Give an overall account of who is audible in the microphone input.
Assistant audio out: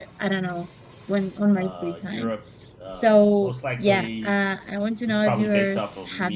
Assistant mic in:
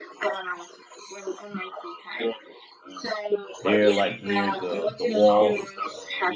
both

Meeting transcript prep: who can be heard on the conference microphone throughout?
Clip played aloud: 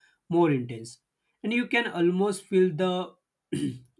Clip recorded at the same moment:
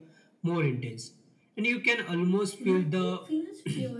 both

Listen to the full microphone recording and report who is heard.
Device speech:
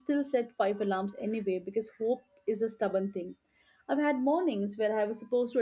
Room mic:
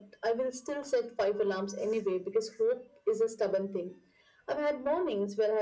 echo only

